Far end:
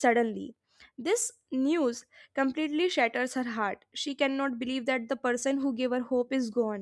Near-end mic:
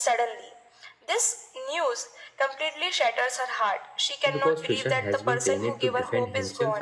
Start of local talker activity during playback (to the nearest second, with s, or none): 4 s